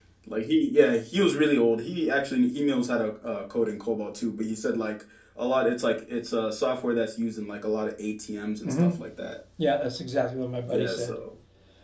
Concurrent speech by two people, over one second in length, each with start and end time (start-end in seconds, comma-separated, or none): none